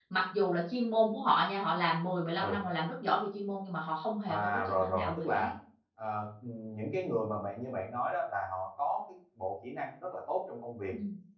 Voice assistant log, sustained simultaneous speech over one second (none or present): present